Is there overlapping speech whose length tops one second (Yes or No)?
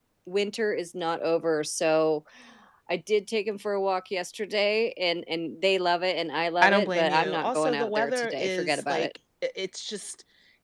Yes